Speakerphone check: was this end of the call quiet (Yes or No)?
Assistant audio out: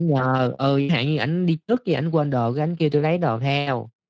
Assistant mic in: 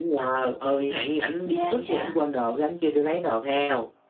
No